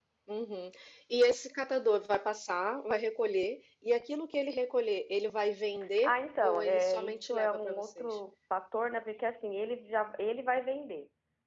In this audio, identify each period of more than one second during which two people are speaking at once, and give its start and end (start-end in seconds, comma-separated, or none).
6.0-8.2